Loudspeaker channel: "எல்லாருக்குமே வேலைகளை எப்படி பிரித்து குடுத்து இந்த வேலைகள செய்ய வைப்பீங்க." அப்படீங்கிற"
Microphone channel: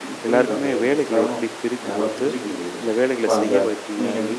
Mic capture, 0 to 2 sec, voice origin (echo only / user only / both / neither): both